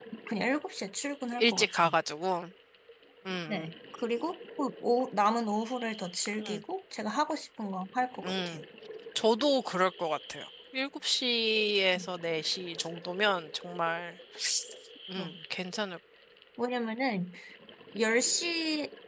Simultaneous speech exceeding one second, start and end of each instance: none

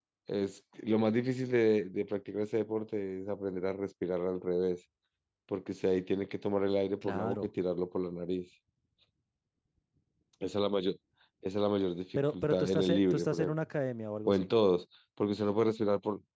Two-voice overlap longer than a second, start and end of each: 12.2-13.5

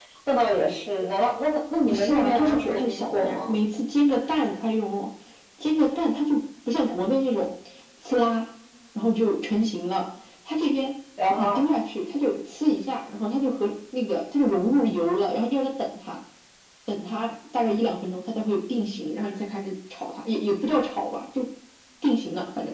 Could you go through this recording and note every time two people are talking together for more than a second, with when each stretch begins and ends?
1.9-3.6

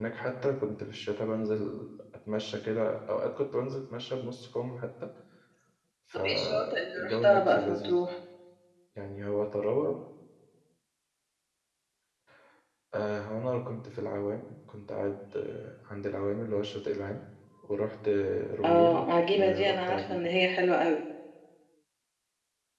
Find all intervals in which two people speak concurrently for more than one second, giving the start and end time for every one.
6.1-8.0, 18.6-20.2

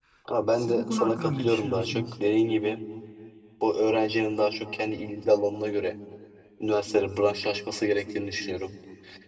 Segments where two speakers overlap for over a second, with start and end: 0.6-2.2

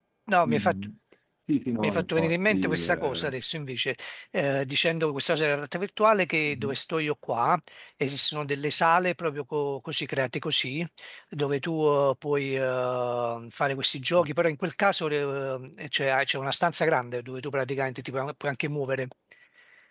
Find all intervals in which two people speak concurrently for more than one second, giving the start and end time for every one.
1.8-3.3

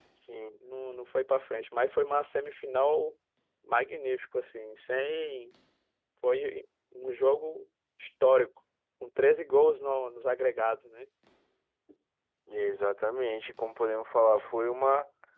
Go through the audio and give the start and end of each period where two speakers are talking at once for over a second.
none

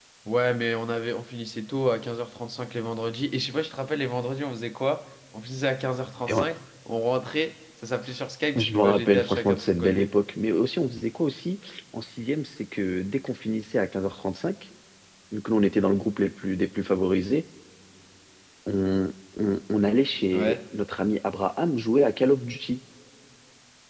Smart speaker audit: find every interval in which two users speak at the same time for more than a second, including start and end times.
8.6-10.1

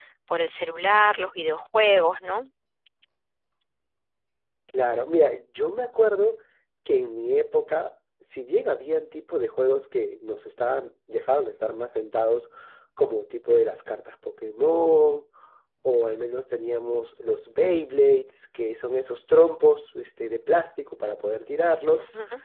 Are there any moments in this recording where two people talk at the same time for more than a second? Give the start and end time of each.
none

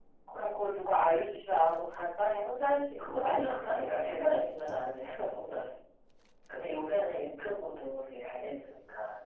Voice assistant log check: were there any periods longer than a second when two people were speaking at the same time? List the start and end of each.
3.0-4.3

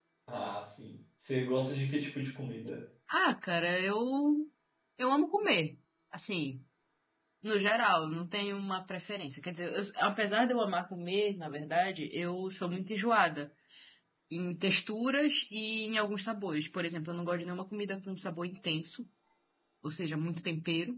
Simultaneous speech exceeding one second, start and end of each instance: none

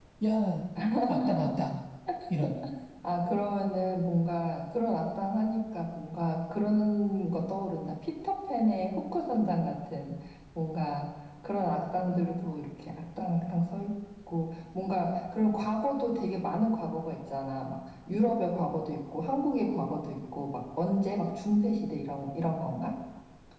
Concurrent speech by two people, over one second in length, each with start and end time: none

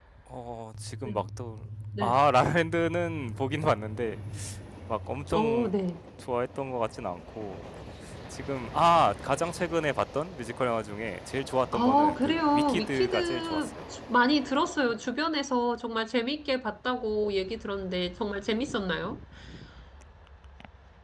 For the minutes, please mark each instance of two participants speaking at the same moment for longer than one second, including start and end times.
11.7-13.7

